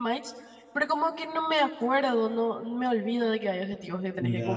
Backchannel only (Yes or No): No